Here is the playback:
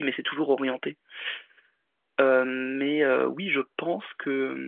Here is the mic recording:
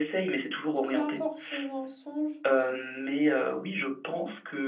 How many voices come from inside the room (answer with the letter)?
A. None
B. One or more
B